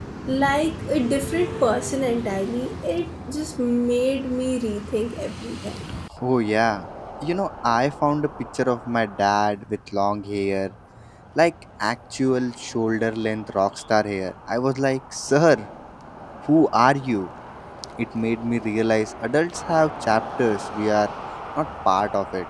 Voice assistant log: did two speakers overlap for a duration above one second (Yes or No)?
No